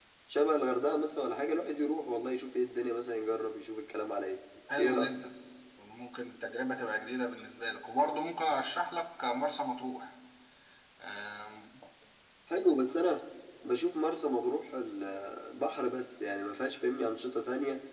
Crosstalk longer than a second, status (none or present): none